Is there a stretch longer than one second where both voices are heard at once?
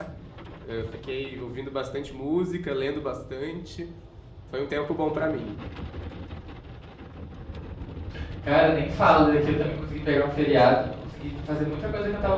No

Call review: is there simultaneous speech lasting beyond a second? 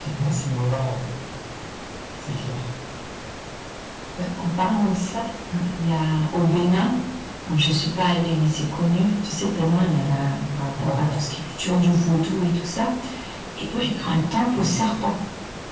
No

